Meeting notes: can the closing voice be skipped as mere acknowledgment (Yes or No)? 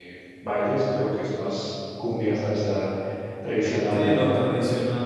No